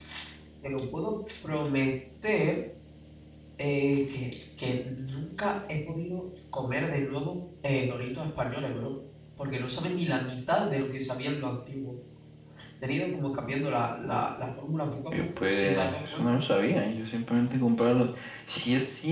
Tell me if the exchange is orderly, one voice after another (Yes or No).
No